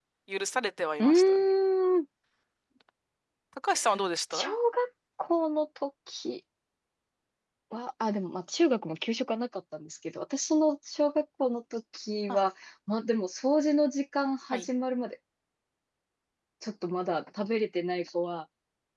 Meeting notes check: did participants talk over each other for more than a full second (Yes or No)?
No